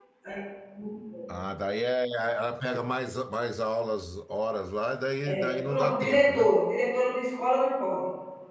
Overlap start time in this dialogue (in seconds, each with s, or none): 5.2 s